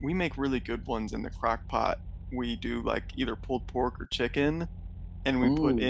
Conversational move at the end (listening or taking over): listening